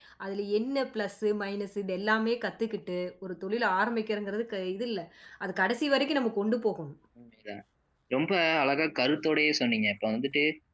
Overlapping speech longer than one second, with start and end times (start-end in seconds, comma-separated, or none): none